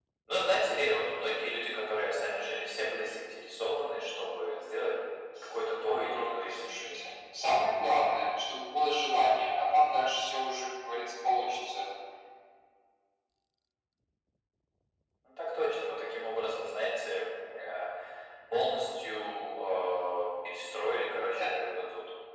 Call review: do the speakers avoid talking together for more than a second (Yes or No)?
No